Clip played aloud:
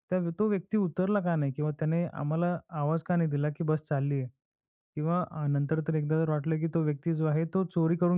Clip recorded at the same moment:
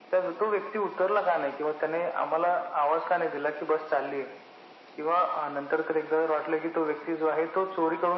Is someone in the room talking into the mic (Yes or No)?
No